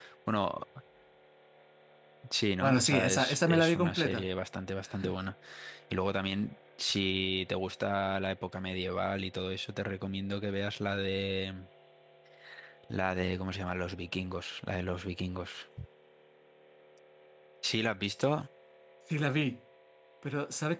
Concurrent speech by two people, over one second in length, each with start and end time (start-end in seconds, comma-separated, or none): 2.6-4.2